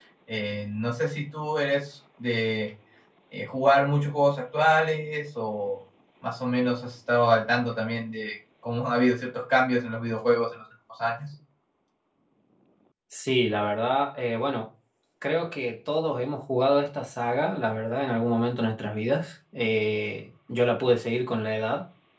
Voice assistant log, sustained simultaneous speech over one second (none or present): none